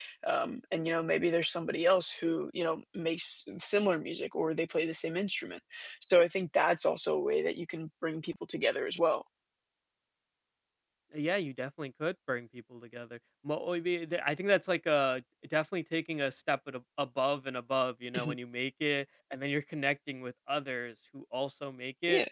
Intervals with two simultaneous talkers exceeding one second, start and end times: none

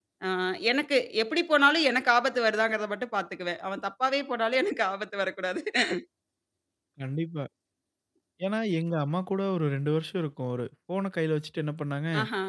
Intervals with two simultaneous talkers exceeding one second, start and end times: none

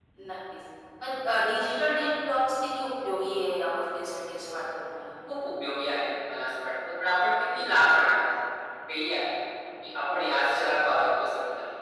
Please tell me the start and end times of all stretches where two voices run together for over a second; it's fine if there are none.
none

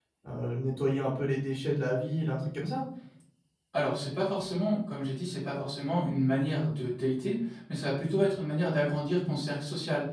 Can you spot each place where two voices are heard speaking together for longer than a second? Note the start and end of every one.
none

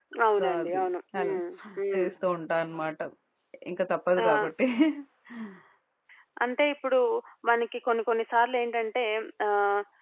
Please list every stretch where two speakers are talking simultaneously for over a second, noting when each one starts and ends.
none

